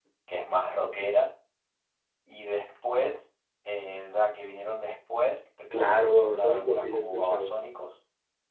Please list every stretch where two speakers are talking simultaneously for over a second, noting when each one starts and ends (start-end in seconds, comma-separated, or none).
5.8-7.5